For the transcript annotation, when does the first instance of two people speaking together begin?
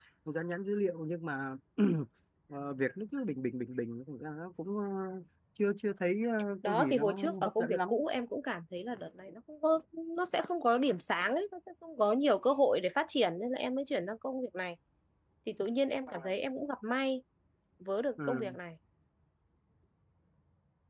6.6 s

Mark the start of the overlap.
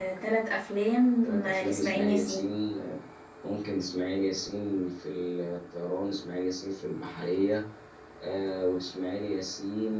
1.2 s

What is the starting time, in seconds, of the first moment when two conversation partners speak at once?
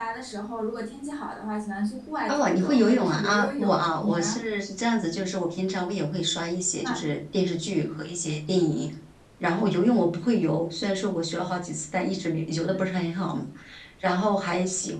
2.3 s

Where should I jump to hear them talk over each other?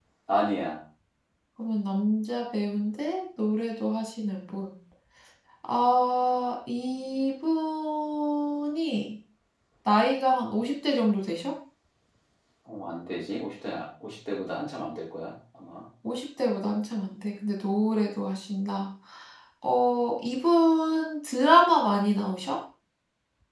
none

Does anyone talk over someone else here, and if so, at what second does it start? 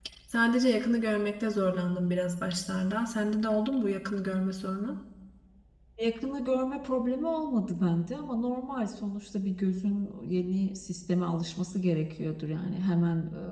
none

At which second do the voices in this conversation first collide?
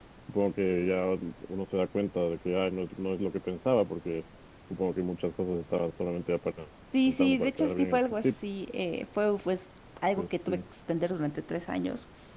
7.1 s

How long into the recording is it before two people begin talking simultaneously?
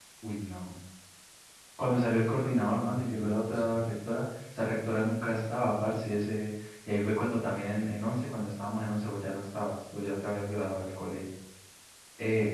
1.9 s

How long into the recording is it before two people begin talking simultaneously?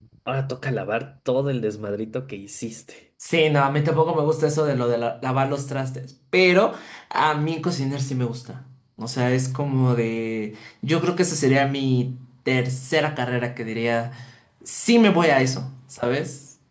none

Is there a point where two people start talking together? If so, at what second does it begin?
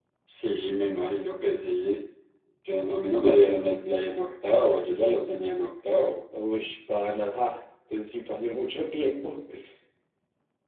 none

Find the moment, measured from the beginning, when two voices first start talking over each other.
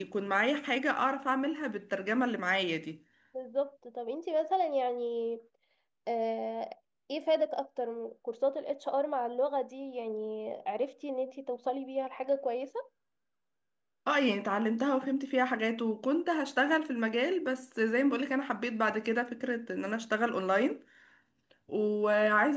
none

